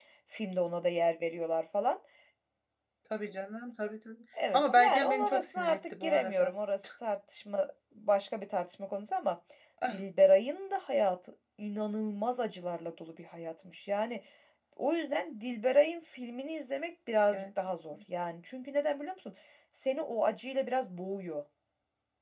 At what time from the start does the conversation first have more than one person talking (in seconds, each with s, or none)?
4.5 s